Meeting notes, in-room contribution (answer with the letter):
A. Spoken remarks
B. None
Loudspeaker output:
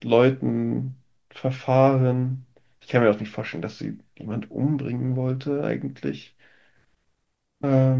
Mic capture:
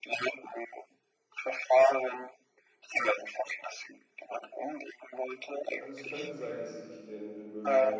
A